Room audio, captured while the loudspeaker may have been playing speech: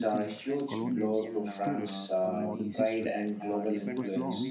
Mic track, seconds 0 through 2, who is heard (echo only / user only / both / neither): both